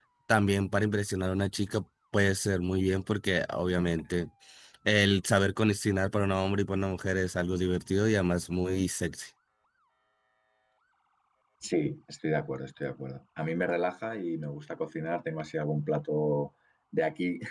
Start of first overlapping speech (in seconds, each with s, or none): none